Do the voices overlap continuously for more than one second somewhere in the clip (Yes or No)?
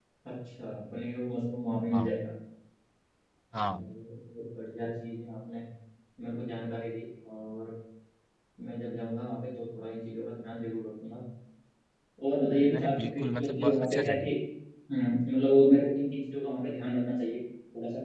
Yes